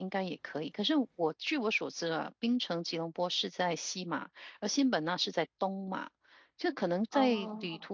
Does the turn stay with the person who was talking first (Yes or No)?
Yes